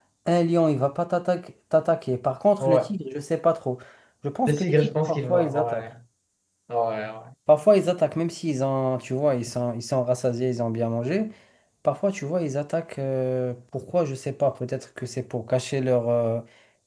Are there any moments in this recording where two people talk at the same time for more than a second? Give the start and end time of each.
4.5-5.9

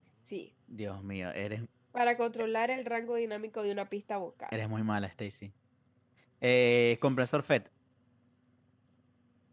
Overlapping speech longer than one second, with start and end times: none

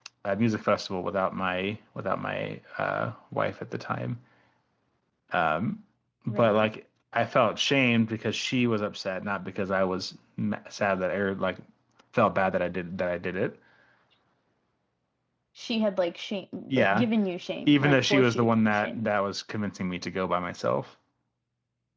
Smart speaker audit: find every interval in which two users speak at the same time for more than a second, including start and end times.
17.7-19.1

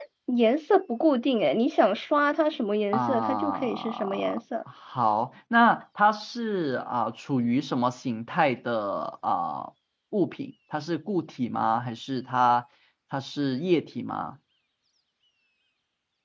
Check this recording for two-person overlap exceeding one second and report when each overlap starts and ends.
2.9-4.4

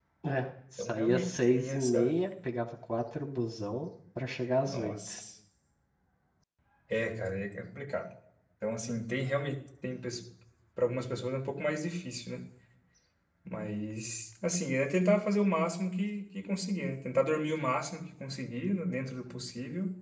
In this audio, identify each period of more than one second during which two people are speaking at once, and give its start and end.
0.8-2.1

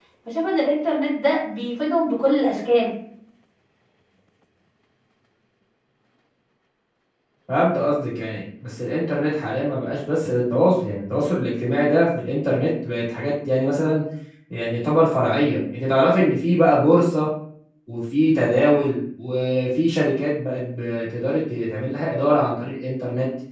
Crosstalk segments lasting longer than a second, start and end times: none

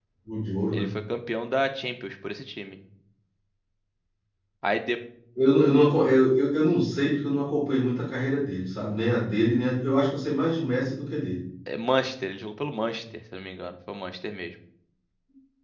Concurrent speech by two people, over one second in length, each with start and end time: none

